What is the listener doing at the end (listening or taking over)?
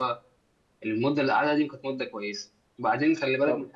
listening